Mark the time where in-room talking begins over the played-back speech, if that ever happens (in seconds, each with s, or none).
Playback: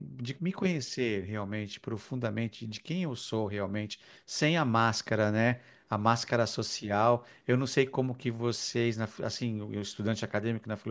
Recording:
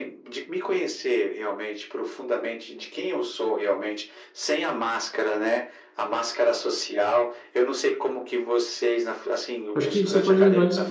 9.7 s